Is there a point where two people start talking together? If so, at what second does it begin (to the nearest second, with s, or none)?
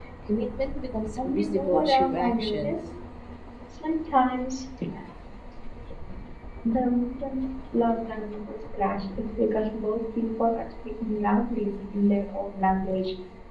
1 s